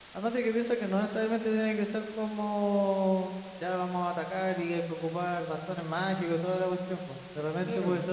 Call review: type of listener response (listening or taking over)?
listening